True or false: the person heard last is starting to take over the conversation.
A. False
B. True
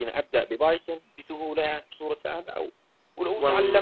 A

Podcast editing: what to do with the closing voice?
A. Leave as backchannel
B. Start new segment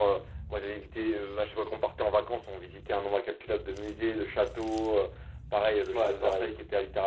A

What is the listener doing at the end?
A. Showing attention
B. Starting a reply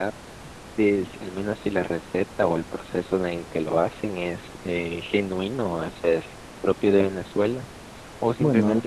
A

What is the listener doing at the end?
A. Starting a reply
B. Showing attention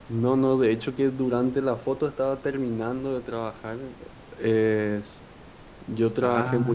B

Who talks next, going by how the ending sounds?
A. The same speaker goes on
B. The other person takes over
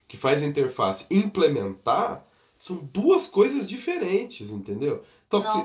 A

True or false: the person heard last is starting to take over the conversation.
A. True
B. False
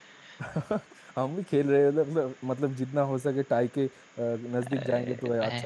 A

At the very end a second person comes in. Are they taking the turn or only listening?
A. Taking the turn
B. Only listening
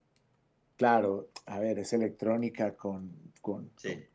B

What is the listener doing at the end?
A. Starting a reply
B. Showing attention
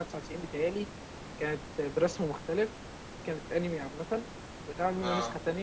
B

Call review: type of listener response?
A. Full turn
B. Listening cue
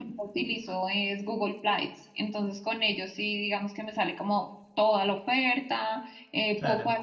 B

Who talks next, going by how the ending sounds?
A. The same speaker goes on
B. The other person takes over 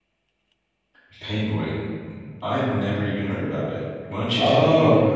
B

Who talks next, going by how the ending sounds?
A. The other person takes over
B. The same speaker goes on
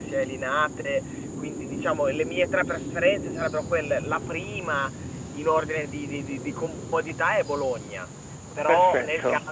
B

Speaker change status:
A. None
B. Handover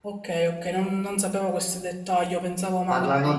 B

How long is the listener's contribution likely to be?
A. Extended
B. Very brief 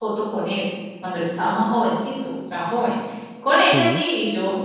B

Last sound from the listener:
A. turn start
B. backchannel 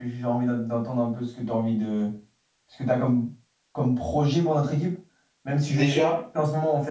B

